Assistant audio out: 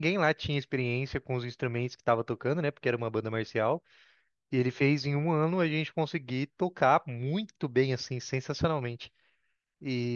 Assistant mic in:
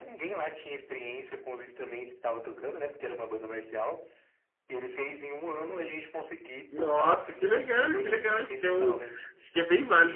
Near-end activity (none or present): present